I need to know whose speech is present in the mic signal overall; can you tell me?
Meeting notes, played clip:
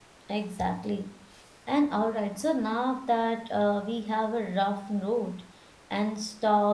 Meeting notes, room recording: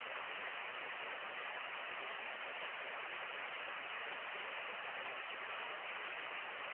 neither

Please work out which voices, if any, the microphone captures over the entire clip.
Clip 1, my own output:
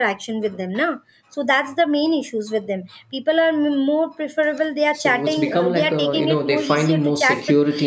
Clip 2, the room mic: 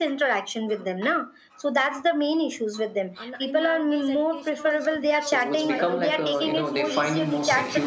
both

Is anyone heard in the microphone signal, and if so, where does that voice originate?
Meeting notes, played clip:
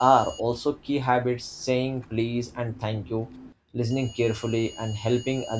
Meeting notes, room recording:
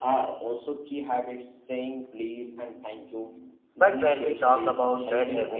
both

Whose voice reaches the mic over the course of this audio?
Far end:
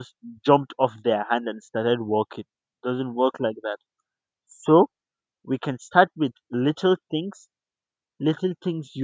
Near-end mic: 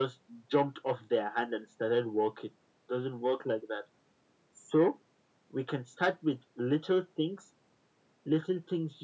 echo only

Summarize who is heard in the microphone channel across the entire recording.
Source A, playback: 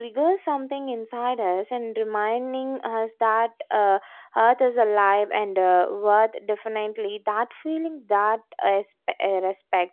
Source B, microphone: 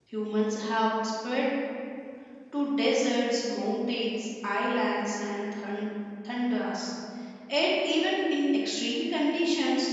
user only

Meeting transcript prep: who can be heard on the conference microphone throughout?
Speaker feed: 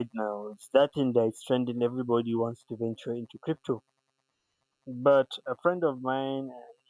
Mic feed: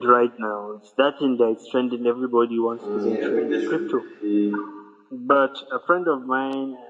both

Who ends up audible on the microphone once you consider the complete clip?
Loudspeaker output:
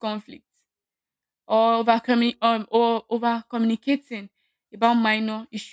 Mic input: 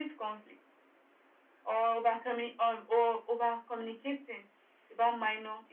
echo only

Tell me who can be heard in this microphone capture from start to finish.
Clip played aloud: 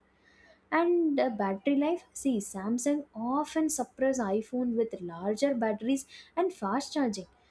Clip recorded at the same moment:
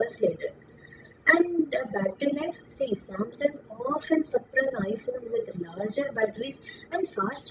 echo only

